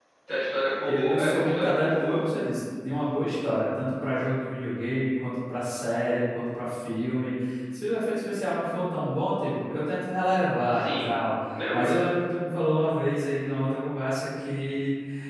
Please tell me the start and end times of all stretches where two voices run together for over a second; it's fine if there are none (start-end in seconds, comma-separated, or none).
0.8-2.2